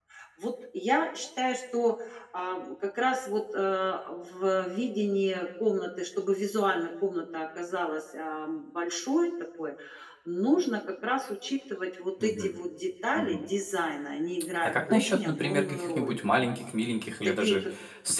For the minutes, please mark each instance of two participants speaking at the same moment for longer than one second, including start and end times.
14.6-16.1

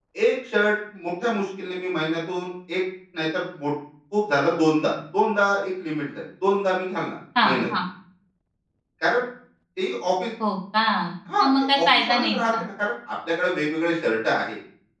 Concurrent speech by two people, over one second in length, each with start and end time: 11.4-12.6

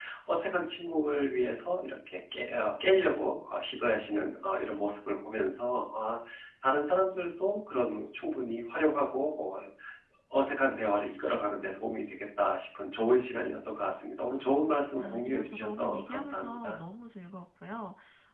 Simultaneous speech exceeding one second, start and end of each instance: 15.0-16.8

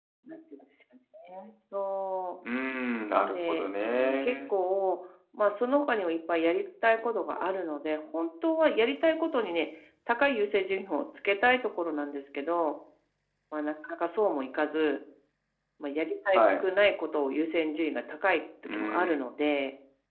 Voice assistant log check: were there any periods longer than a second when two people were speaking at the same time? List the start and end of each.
3.1-4.5

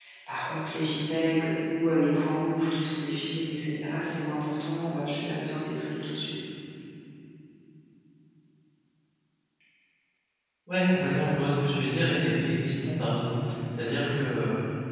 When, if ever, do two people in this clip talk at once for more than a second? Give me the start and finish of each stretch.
none

